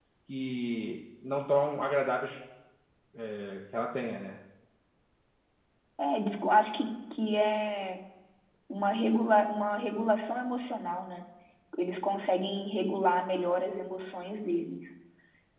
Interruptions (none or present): none